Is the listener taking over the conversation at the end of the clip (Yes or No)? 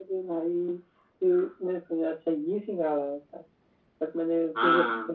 No